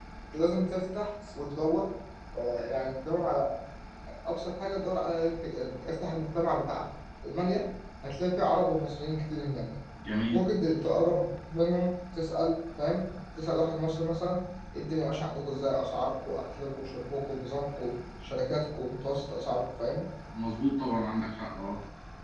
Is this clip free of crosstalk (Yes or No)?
Yes